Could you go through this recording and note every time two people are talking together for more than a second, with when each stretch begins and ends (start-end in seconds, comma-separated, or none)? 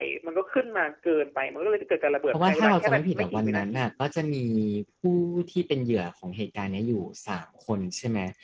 2.3-3.8